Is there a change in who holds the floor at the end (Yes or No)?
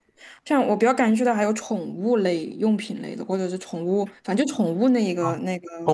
Yes